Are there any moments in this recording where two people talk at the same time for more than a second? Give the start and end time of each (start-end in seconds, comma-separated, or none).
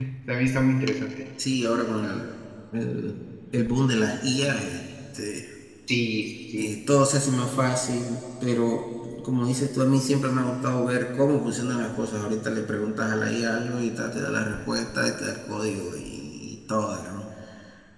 none